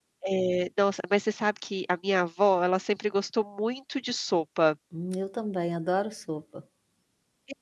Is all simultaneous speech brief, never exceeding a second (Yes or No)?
Yes